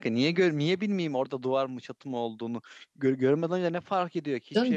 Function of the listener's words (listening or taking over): taking over